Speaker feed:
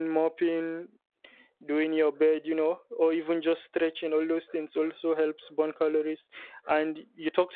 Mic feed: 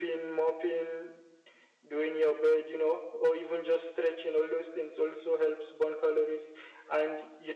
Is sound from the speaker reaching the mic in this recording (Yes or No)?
Yes